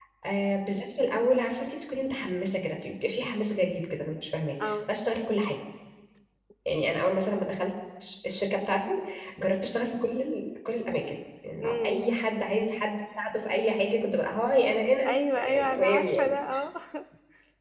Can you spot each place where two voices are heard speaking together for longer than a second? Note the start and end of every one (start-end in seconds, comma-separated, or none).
15.1-16.4